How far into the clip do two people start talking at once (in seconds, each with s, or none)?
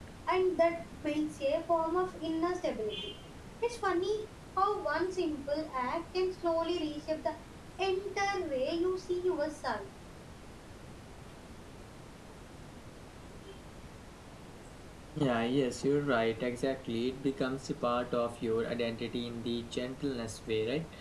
none